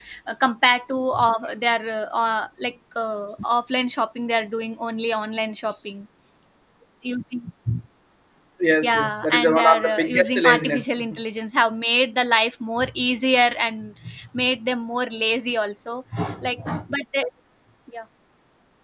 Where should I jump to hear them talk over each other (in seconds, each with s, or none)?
8.8 s